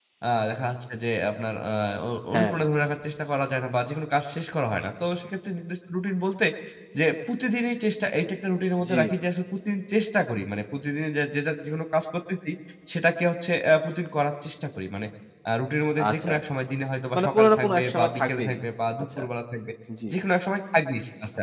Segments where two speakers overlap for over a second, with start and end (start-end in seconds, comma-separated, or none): 17.1-18.6